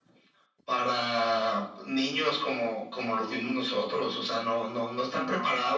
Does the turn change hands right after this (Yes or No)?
No